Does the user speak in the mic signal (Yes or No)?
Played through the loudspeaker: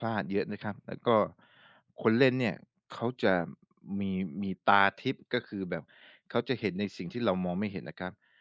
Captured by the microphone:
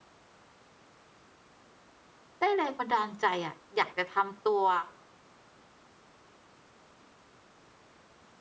Yes